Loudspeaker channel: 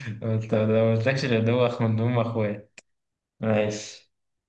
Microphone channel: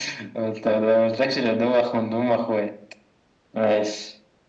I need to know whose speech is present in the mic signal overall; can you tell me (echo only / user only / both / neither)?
echo only